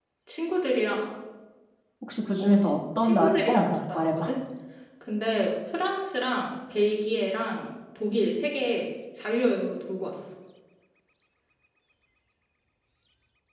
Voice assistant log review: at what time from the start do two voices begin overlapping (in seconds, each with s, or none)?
2.4 s